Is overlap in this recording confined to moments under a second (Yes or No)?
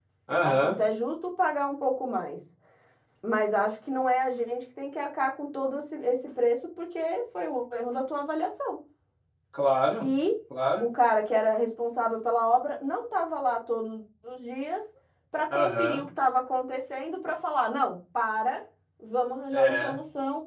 Yes